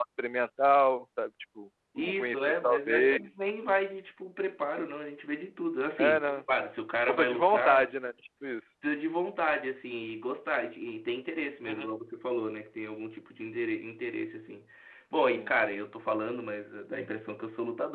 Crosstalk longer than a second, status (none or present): present